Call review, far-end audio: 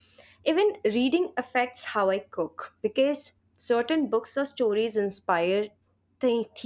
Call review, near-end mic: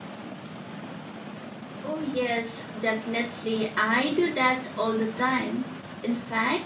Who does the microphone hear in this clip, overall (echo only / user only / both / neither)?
user only